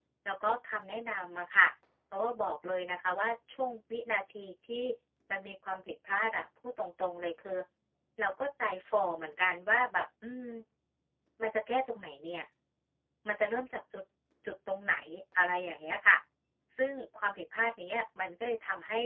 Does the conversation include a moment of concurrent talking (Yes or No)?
No